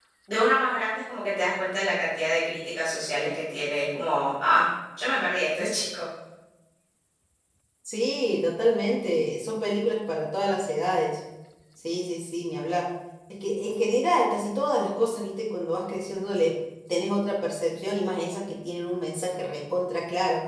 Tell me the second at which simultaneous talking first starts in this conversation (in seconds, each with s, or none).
none